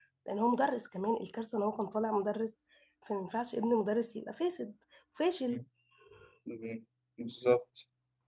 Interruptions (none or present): none